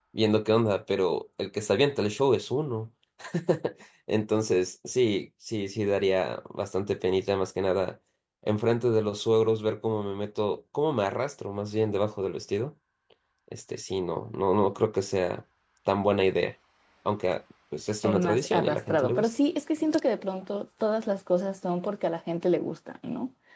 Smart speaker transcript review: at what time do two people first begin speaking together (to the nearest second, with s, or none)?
18 s